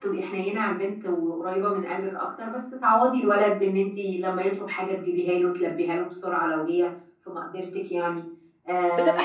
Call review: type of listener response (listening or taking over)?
taking over